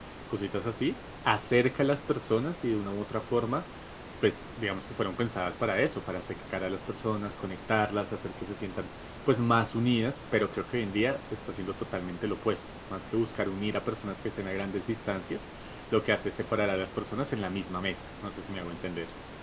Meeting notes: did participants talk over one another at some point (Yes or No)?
No